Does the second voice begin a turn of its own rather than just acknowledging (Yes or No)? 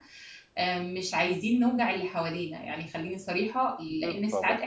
No